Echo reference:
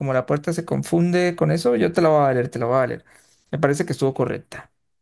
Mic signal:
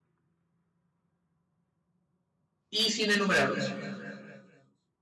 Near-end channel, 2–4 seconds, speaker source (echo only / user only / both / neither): user only